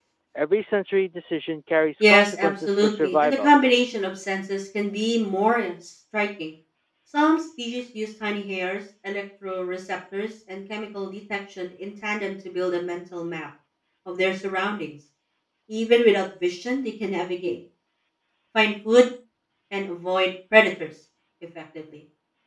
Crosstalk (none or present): present